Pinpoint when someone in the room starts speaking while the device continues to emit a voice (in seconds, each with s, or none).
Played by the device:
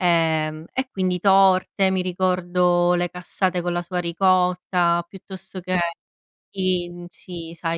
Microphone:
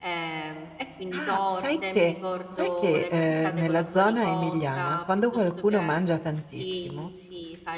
1.1 s